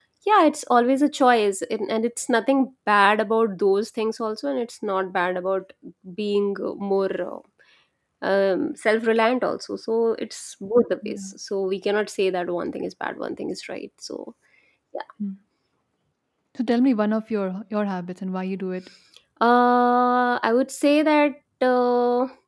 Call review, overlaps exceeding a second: none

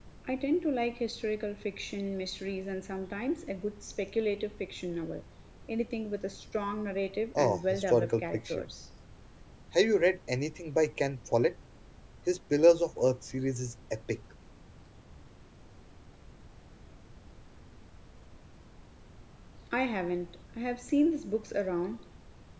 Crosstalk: present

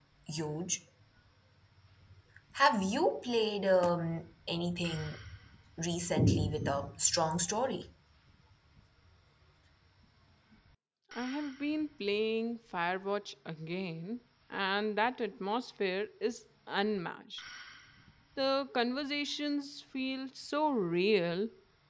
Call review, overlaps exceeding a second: none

